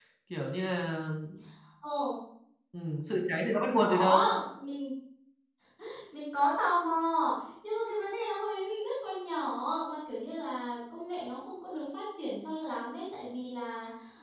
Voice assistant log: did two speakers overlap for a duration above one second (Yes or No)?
No